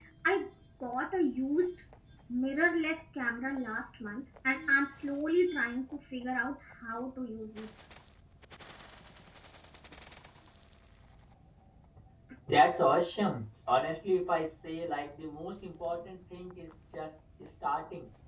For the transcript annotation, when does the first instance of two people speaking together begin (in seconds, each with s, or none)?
none